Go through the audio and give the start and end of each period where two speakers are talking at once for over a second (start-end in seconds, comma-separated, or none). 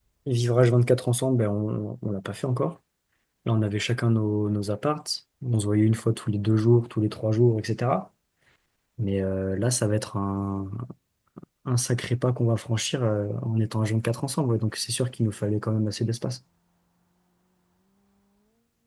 none